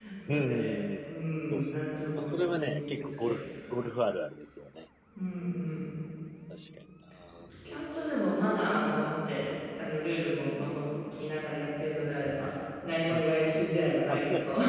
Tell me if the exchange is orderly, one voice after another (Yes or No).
No